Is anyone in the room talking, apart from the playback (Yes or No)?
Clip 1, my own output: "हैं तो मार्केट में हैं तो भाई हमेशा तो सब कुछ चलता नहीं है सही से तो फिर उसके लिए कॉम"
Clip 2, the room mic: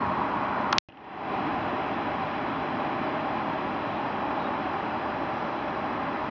No